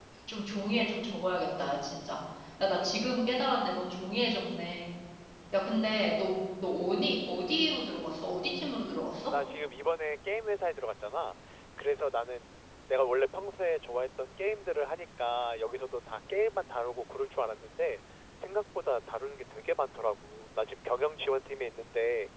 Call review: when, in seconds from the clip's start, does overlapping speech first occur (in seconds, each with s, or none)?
none